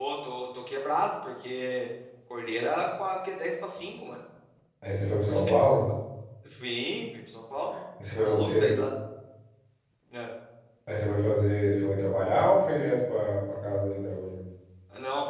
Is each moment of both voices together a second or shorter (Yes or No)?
Yes